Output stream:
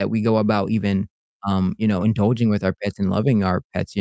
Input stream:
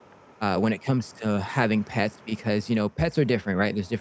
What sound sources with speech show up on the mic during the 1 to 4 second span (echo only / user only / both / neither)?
user only